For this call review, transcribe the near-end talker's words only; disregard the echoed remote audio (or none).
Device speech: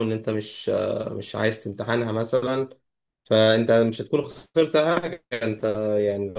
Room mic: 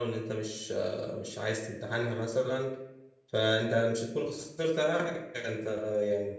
none